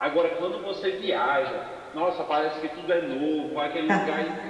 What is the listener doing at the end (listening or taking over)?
listening